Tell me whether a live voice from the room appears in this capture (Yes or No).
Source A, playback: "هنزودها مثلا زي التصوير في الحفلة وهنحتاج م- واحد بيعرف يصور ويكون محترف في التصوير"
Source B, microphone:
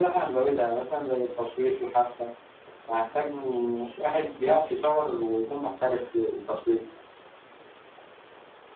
No